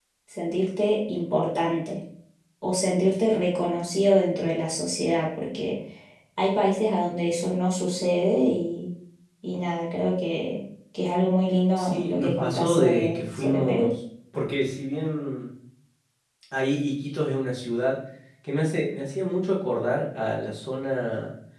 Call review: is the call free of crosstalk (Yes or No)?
No